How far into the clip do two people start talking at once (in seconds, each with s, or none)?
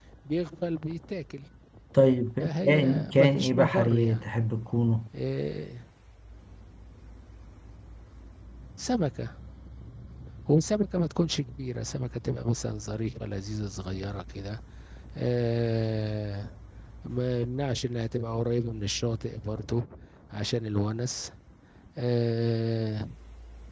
2.4 s